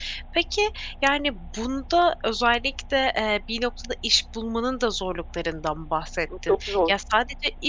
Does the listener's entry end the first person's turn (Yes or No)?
No